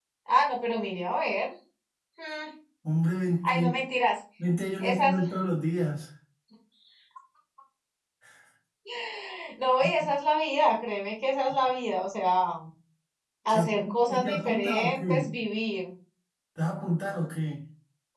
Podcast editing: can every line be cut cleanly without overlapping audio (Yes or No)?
No